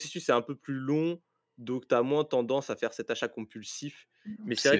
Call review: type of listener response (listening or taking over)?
listening